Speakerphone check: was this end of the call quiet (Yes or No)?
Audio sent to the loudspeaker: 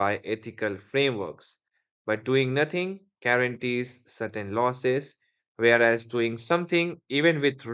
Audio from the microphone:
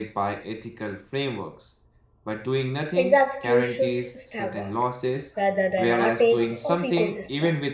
No